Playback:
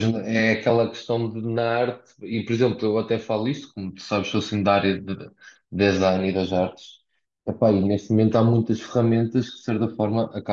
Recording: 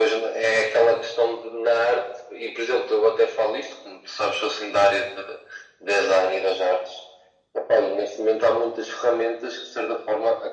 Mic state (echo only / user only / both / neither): echo only